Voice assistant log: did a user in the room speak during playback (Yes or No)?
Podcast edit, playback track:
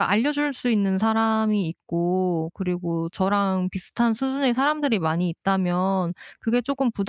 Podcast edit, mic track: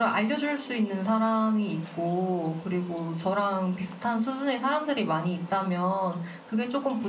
No